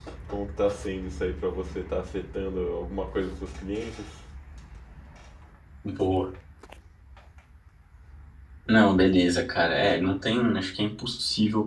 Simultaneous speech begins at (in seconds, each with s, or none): none